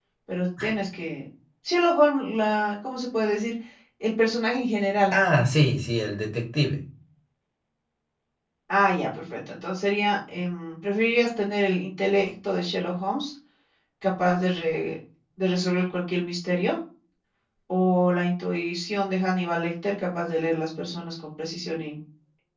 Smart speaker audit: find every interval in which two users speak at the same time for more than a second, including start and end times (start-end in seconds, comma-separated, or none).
none